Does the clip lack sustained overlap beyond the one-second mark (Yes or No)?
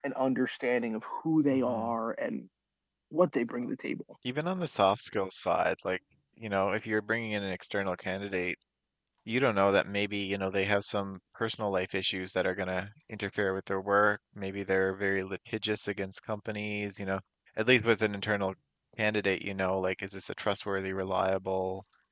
Yes